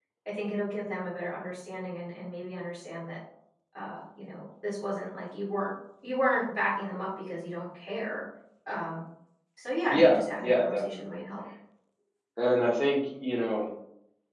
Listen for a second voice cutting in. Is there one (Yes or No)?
Yes